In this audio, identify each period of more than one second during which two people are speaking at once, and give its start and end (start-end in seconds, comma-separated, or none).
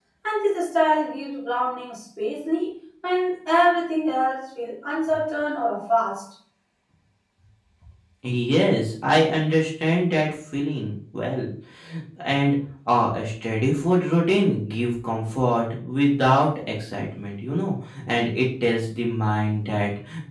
none